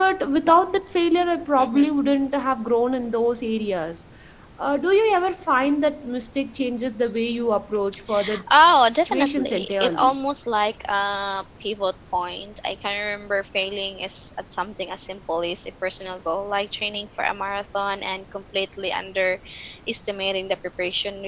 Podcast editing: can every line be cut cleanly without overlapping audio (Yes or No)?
No